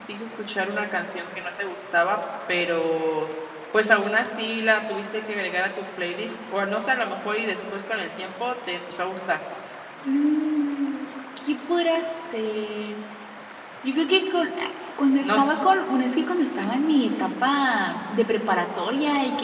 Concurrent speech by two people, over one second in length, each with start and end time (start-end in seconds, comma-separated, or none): none